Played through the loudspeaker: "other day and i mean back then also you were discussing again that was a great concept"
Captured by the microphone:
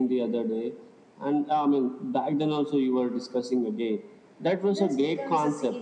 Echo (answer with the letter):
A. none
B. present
B